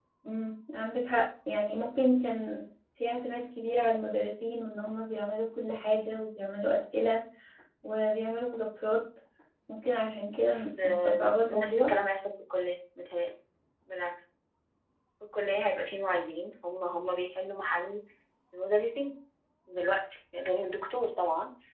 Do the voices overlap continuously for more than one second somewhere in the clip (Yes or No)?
Yes